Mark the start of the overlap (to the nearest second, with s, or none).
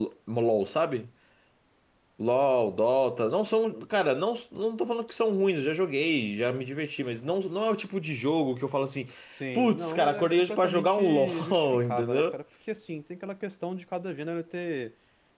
10 s